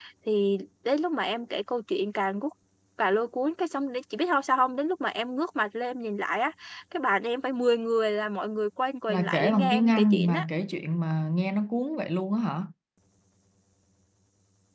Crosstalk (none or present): present